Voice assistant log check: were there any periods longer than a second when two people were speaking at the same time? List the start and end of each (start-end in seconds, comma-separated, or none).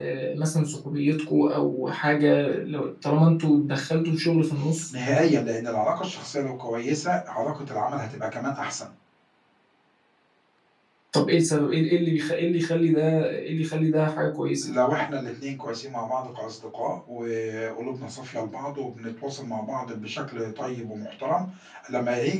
none